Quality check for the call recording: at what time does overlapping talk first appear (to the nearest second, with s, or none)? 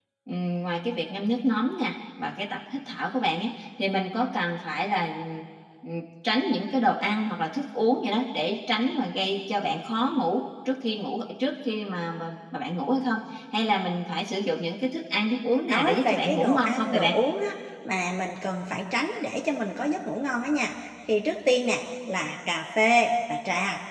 16 s